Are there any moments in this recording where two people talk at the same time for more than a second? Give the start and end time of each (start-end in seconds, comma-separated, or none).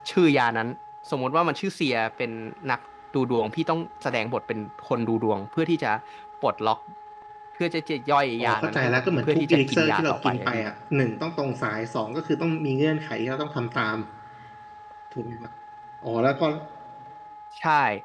8.4-10.6